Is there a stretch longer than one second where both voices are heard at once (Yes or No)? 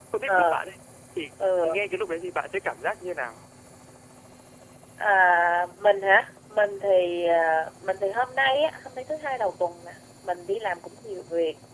No